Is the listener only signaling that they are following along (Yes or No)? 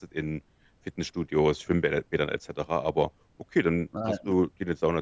Yes